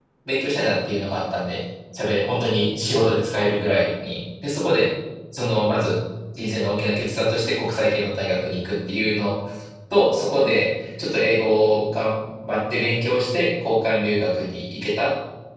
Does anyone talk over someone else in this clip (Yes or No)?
No